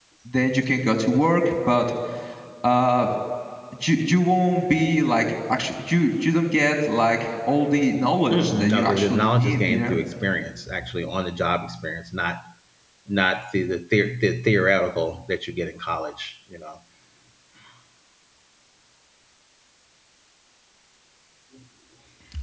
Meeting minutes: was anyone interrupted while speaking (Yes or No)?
Yes